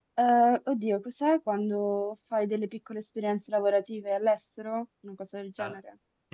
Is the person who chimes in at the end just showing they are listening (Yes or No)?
No